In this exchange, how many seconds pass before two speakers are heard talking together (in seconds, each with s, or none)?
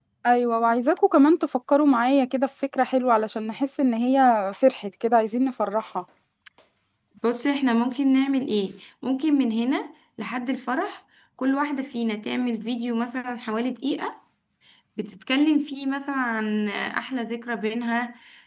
none